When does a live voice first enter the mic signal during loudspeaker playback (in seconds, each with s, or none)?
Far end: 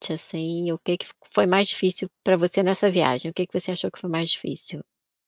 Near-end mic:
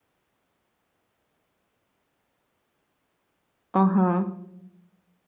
3.7 s